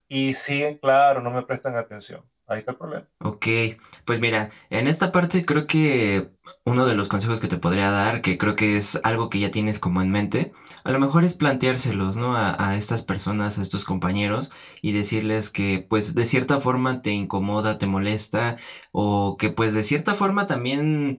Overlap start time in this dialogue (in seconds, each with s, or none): none